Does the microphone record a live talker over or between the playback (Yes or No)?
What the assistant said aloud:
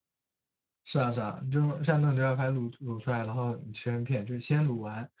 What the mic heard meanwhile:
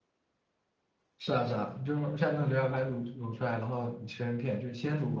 No